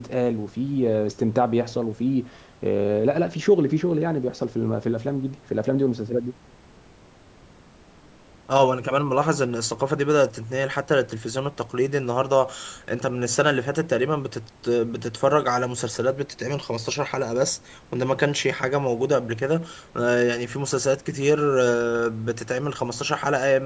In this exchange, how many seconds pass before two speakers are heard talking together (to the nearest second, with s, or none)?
none